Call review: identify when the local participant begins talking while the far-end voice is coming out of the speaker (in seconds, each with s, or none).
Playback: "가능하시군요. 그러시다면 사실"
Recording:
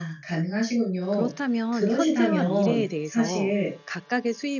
1.1 s